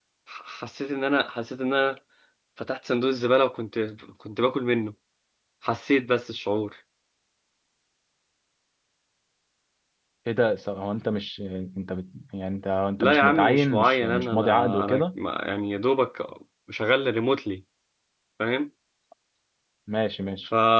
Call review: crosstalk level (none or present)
present